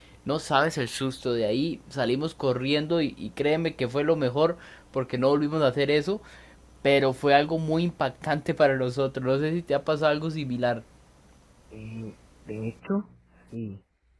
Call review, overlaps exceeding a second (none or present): none